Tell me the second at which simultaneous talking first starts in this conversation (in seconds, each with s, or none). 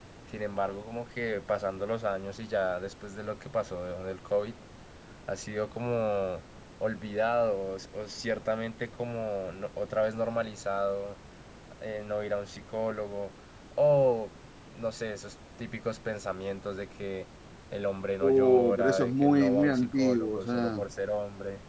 18.2 s